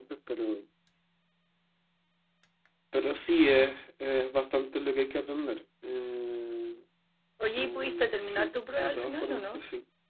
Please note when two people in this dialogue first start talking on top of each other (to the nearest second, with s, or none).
8 s